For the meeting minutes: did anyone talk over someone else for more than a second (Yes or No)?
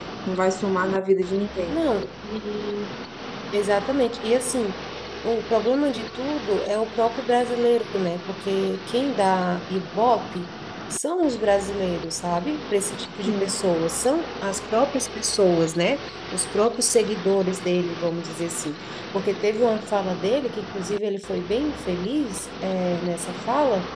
No